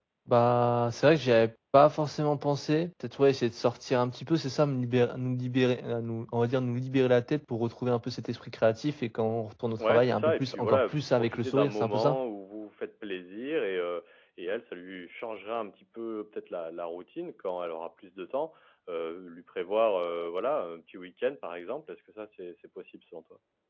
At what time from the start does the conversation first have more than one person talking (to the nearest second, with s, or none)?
10 s